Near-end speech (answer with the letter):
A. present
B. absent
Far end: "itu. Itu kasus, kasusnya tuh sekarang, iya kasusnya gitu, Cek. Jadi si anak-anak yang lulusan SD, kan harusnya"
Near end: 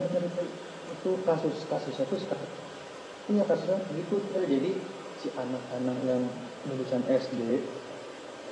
B